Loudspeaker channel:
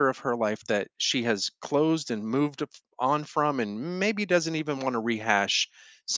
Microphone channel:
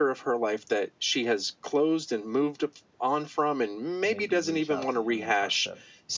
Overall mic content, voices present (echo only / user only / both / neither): both